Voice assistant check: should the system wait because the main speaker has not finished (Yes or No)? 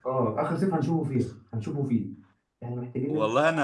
No